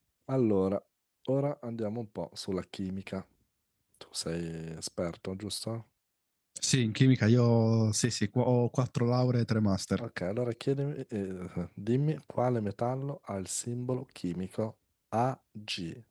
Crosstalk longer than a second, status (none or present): none